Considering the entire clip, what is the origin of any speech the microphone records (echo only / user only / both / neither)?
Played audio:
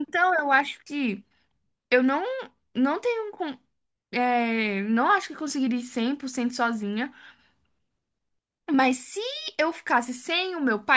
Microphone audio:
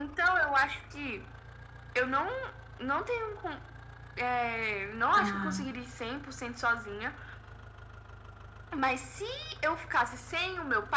both